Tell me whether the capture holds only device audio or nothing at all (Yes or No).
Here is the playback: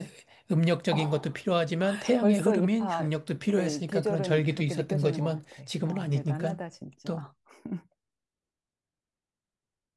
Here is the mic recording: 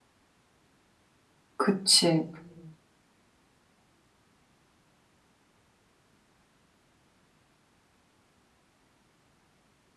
No